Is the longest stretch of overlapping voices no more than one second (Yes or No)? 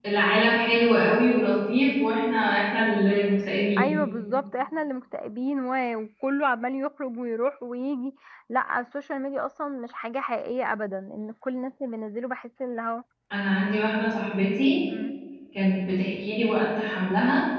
Yes